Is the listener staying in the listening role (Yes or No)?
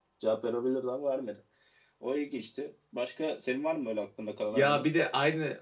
No